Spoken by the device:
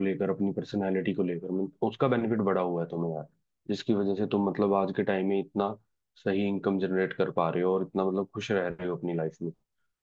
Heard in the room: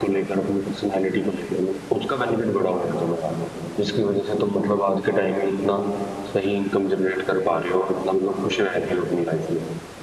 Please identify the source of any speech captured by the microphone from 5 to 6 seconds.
echo only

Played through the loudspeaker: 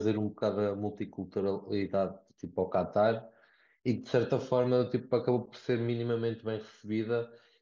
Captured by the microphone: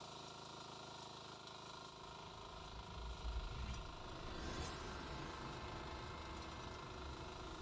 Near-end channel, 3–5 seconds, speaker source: neither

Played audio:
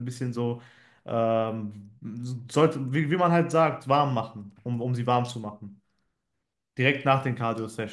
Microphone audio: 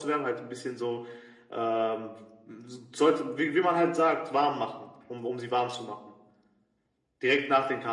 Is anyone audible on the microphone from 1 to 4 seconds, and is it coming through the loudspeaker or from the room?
echo only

